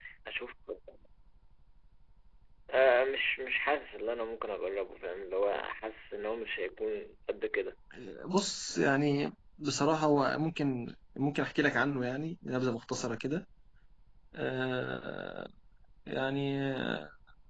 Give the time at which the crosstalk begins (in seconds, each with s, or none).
none